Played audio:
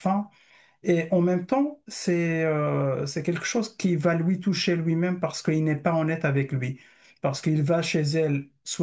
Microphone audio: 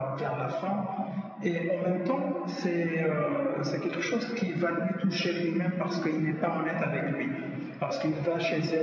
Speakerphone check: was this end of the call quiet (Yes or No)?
Yes